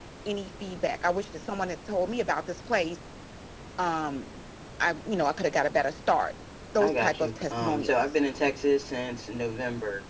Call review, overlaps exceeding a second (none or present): present